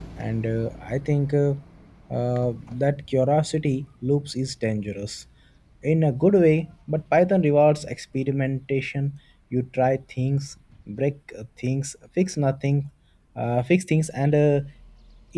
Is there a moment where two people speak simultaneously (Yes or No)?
No